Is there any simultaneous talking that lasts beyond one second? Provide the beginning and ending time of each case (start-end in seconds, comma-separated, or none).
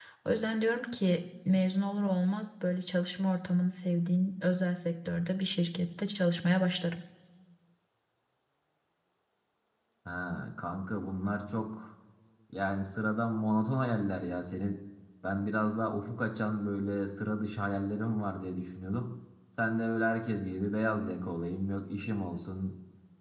none